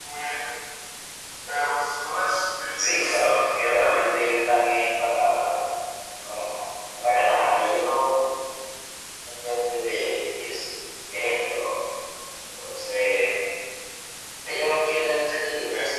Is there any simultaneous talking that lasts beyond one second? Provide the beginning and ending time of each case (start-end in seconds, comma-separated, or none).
2.8-4.1